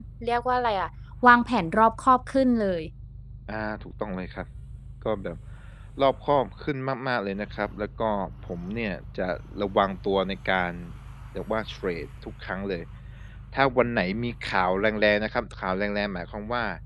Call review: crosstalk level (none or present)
none